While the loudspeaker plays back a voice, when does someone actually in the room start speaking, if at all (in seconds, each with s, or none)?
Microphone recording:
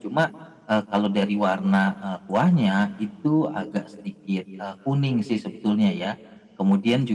none